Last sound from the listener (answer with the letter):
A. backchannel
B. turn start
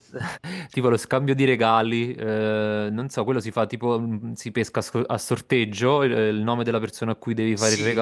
B